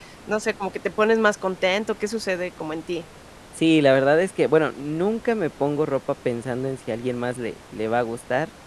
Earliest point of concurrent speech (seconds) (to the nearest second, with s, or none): none